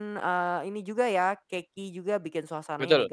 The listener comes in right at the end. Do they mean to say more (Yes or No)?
No